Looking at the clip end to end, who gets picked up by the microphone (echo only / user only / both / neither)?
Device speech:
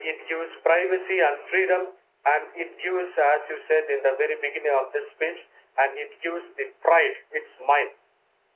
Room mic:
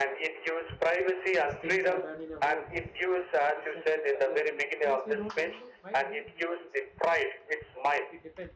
both